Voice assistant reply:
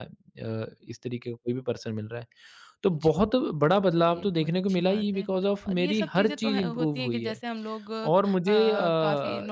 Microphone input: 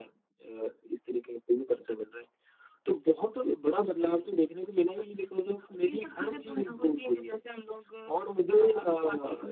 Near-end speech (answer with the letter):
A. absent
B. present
A